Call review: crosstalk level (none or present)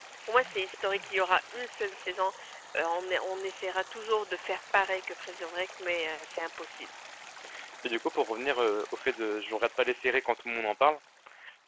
none